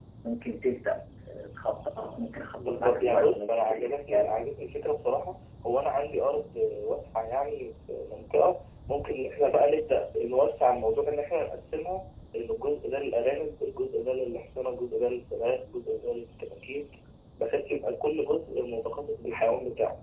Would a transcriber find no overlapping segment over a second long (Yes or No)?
No